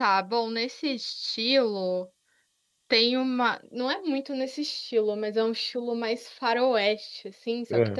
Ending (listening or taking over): listening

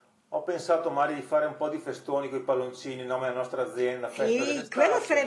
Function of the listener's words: taking over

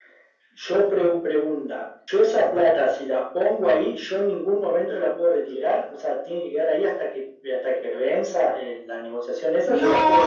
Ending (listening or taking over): taking over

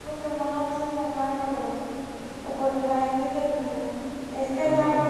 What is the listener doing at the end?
listening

